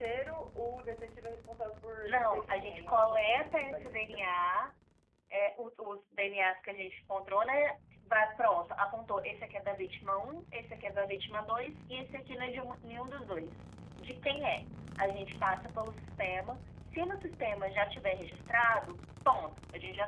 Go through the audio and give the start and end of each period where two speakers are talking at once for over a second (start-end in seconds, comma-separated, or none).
2.0-4.2